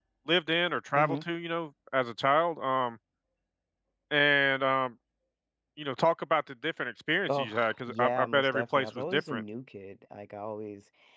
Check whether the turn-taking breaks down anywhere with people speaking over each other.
Yes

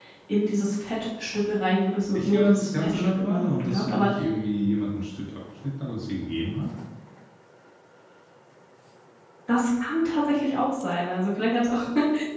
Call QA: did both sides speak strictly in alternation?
No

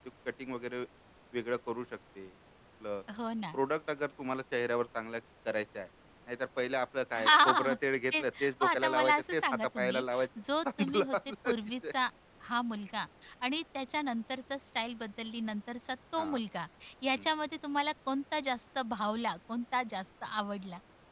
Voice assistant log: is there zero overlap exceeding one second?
No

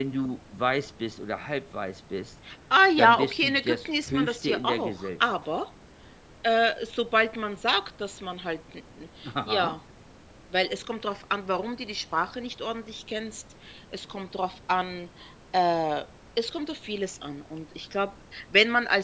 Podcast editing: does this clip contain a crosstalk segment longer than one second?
Yes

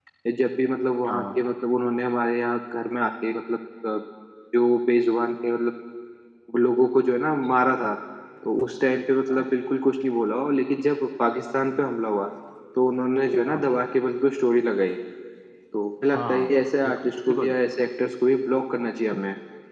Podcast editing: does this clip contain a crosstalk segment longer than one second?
Yes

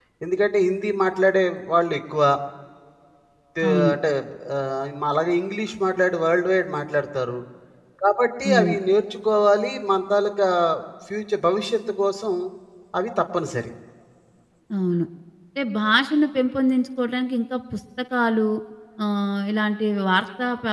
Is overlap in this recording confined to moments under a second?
Yes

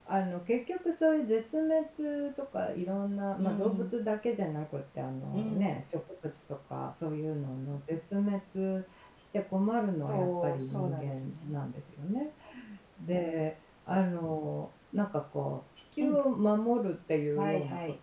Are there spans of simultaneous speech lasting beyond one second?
Yes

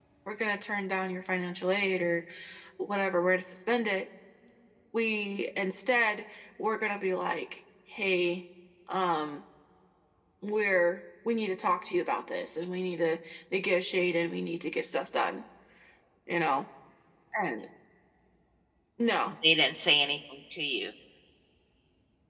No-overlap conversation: Yes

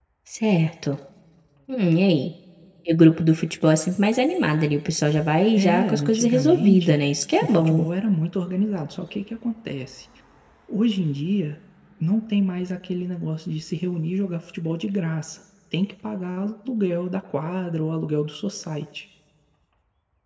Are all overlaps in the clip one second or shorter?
No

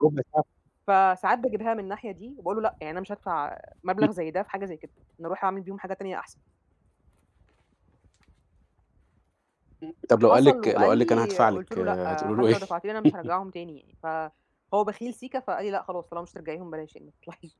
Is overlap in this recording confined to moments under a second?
No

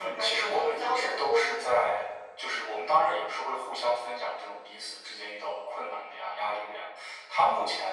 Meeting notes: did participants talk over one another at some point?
Yes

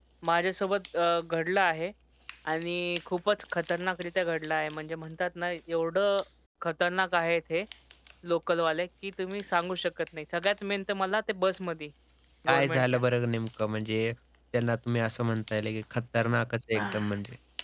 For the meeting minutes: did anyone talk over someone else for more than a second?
No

